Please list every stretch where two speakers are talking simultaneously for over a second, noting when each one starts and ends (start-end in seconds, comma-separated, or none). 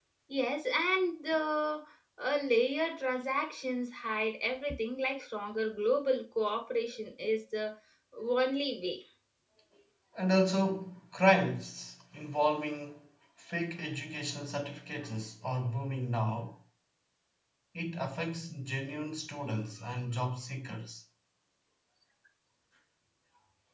none